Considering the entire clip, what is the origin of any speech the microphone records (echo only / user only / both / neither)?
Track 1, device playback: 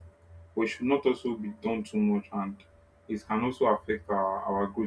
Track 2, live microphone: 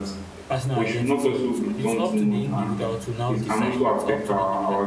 both